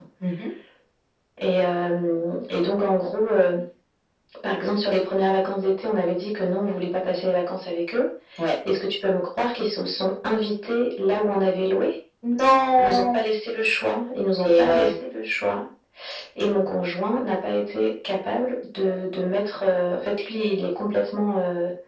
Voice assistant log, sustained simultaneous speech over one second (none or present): none